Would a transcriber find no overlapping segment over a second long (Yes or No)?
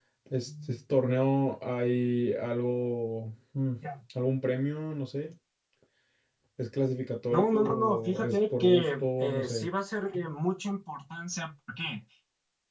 No